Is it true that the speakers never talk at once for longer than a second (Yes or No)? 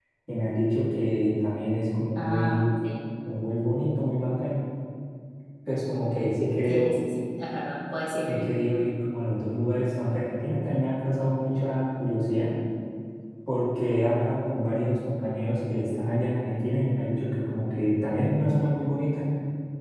Yes